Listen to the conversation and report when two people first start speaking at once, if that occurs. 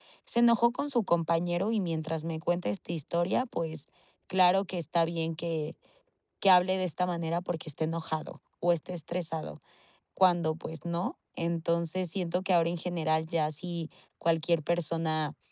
none

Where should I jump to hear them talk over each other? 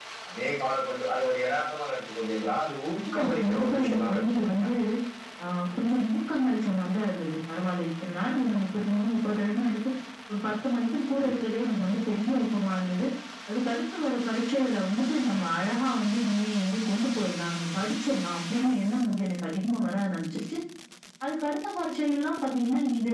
3.1 s

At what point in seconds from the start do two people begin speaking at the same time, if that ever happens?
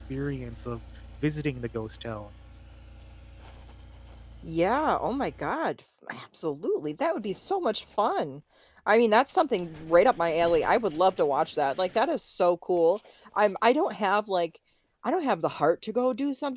none

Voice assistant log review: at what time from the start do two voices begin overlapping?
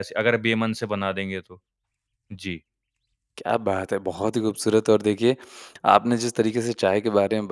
none

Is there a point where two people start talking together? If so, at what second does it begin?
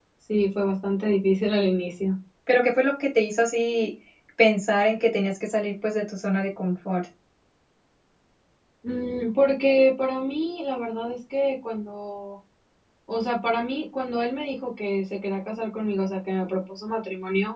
none

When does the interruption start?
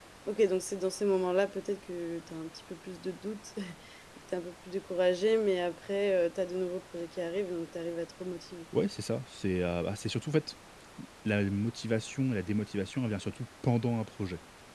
none

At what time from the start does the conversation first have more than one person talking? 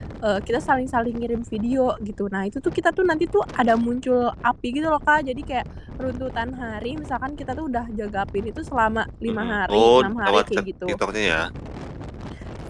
9.3 s

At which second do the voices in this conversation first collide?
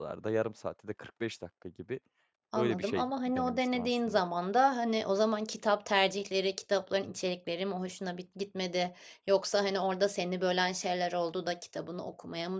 2.6 s

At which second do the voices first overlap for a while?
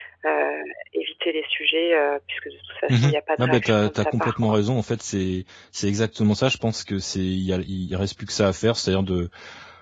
2.9 s

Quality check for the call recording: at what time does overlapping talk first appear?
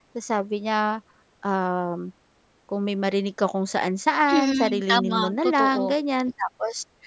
4.3 s

